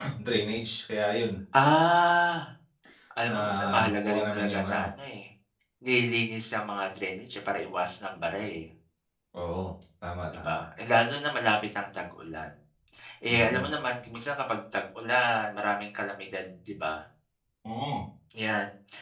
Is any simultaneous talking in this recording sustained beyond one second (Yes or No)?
Yes